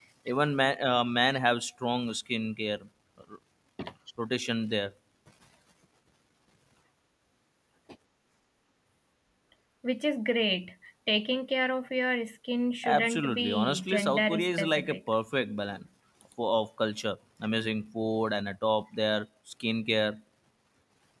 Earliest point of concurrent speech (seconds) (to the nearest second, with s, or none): 13 s